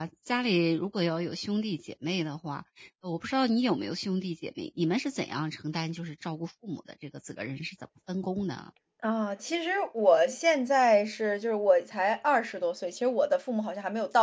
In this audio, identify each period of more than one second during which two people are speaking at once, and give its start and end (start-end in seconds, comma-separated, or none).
none